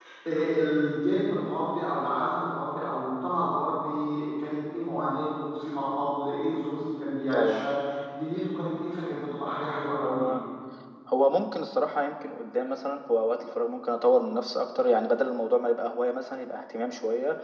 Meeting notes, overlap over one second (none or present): none